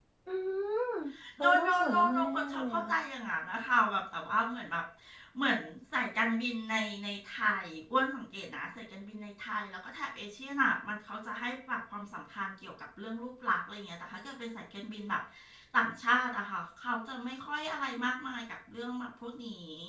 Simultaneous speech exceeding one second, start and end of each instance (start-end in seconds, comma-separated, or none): 1.4-2.8